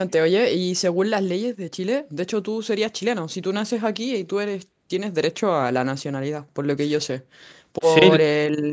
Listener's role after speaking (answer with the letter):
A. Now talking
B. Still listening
B